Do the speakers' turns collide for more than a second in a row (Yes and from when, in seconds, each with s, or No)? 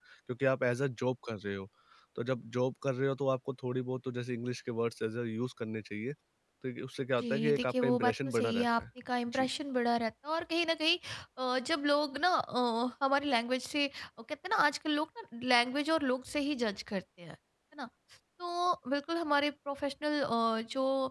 Yes, from 7.2 s